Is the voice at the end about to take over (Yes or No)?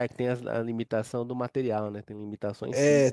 Yes